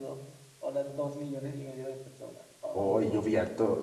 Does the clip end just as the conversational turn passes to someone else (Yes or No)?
Yes